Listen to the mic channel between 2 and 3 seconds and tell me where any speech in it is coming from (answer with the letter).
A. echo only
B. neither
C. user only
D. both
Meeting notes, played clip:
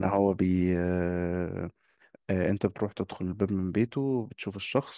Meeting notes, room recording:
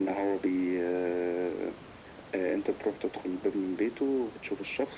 A